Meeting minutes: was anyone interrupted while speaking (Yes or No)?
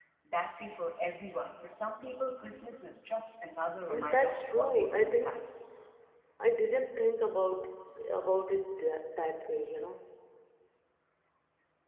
Yes